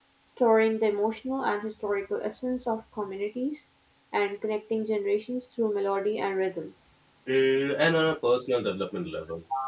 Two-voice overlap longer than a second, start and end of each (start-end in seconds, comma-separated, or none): none